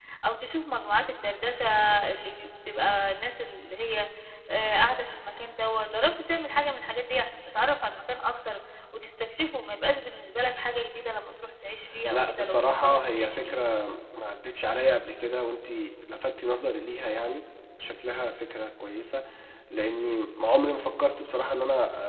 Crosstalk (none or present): present